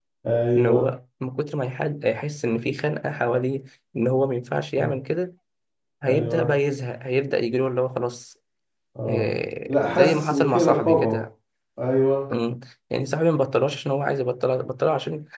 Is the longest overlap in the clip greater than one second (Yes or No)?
Yes